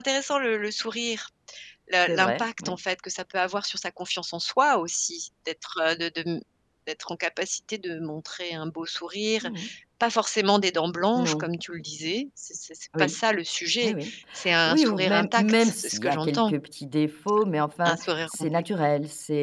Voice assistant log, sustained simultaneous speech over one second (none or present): present